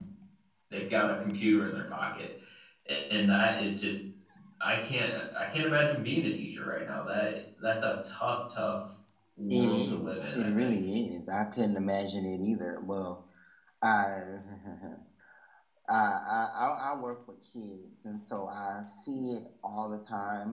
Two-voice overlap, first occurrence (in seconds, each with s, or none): 9.5 s